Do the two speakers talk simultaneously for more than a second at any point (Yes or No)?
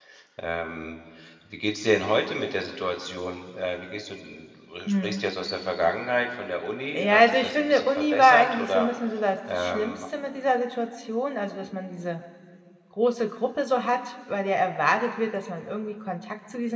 Yes